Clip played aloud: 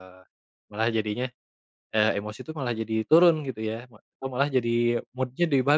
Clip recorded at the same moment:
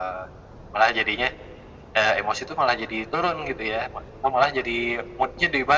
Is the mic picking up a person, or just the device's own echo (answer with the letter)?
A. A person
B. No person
B